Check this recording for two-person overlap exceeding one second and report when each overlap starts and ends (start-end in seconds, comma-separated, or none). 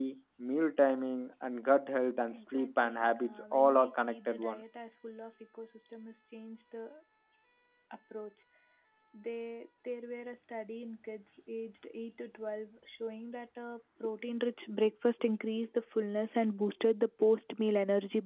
2.3-4.6